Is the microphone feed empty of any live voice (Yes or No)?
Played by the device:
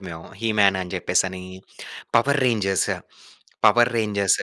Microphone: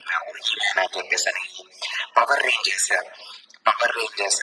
Yes